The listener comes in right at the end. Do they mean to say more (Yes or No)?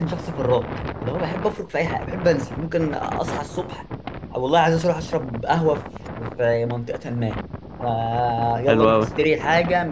No